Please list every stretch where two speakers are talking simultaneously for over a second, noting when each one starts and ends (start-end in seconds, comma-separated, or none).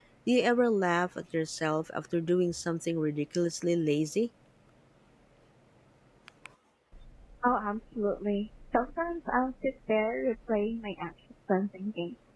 none